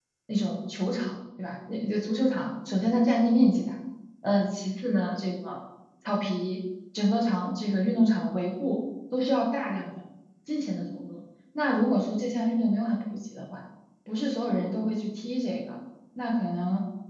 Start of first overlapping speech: none

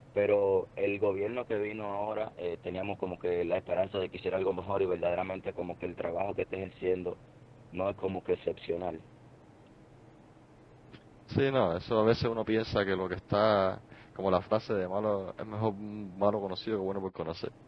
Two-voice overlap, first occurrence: none

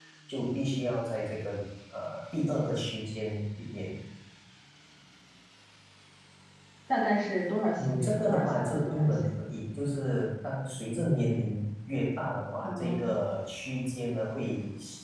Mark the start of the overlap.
7.9 s

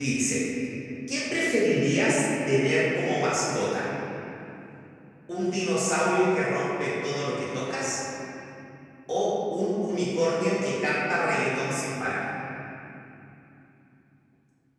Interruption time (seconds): none

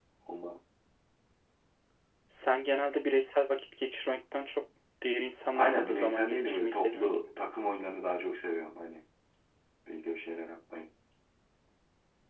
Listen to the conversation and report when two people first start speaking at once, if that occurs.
5.5 s

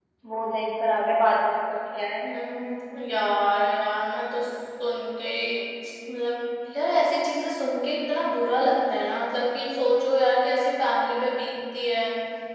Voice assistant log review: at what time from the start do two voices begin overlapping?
none

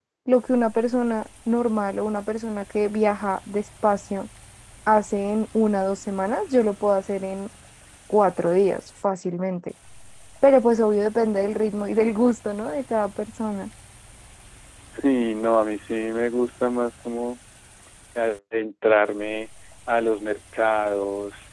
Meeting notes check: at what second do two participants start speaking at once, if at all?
none

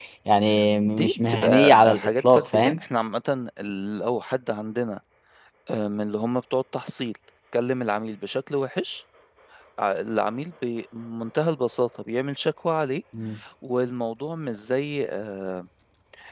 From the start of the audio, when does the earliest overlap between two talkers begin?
0.9 s

